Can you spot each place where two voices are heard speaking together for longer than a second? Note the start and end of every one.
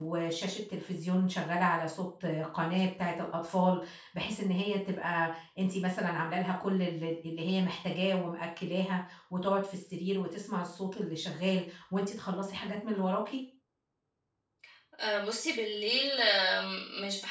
none

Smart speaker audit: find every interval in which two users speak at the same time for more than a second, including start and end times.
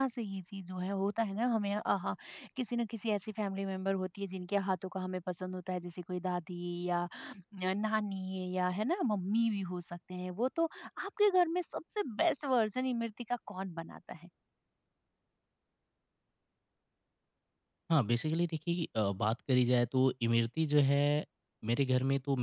none

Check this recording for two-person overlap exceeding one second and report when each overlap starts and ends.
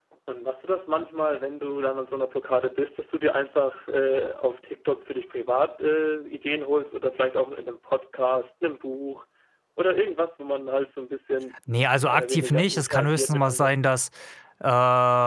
12.0-13.8

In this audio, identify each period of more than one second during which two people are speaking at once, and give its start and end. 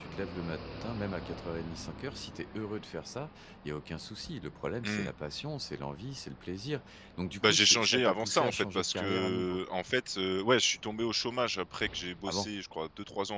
7.4-9.6

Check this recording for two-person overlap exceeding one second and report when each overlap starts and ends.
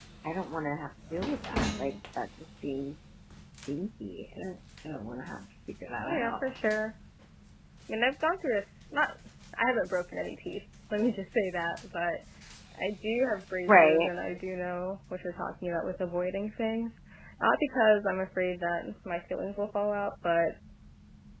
none

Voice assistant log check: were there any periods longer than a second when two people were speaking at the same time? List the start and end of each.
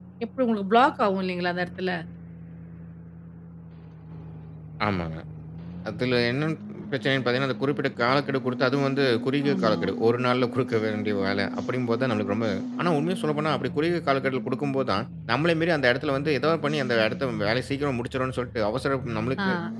none

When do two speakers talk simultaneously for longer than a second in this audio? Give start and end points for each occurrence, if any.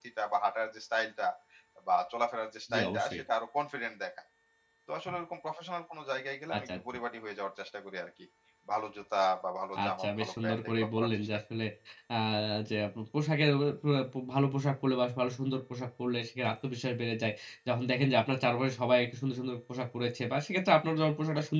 9.8-11.1

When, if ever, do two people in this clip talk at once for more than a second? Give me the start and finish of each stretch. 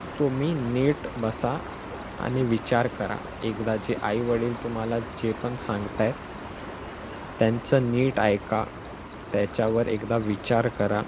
none

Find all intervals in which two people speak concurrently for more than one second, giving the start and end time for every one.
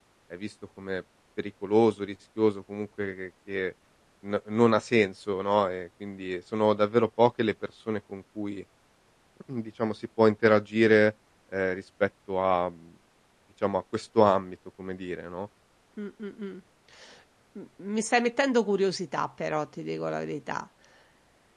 none

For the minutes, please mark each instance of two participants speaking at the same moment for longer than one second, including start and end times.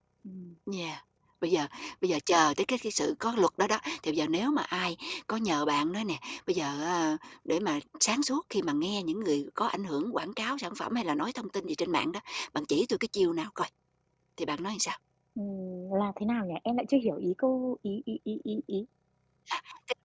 none

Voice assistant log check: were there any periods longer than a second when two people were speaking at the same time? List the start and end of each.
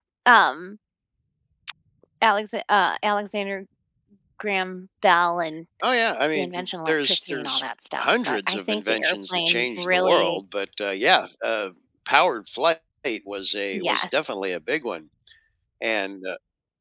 6.3-7.6, 8.0-10.4

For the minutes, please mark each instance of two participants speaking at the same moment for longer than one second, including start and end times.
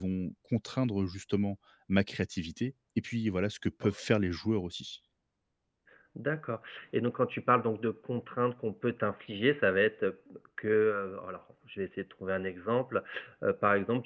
none

